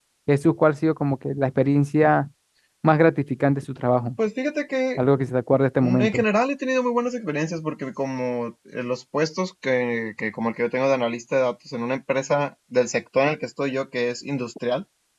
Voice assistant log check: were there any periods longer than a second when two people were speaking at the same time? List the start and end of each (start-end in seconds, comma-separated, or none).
none